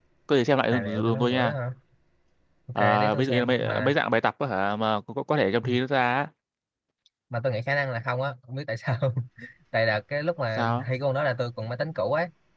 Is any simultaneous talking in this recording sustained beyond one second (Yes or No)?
Yes